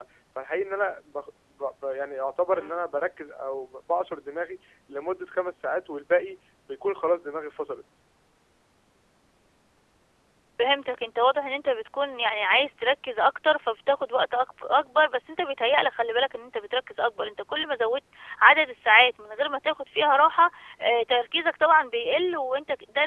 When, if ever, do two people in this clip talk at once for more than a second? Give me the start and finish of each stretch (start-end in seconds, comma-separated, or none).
none